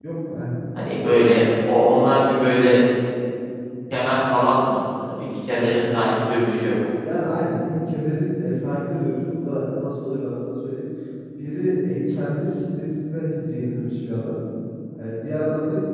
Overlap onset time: none

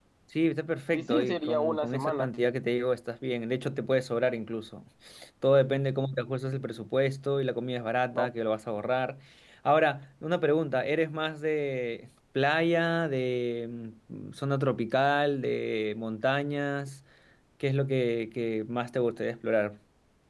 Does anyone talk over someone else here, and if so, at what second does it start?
0.9 s

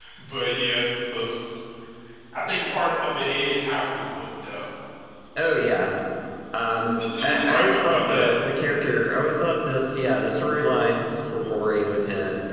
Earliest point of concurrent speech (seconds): 7.0 s

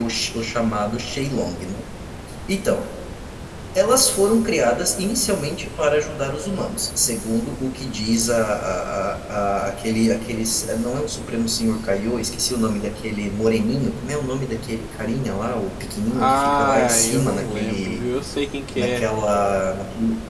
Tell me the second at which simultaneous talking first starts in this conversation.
16.1 s

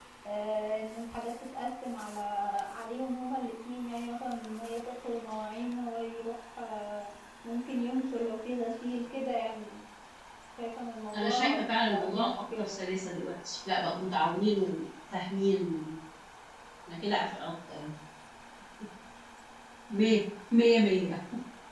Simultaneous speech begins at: 11.1 s

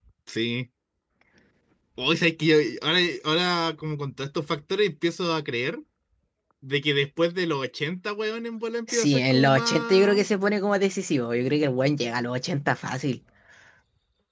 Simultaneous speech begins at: 8.9 s

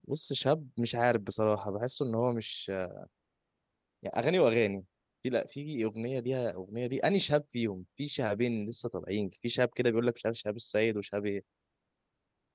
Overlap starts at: none

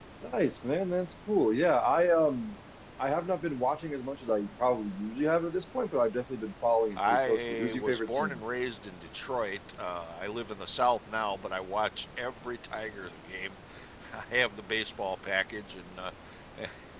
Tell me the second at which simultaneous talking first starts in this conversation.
7.0 s

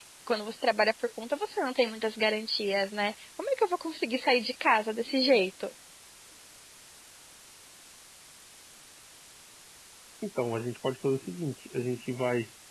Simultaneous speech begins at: none

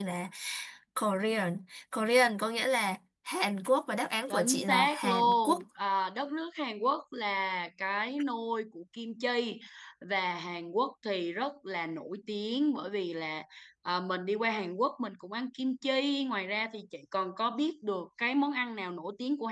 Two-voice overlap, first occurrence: 4.3 s

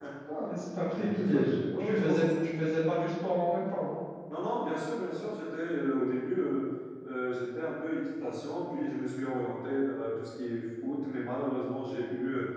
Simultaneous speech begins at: 0.9 s

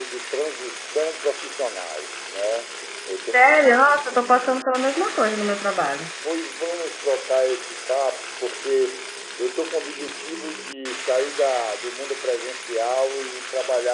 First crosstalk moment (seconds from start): none

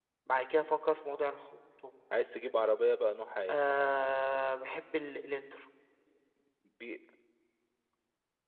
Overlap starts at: none

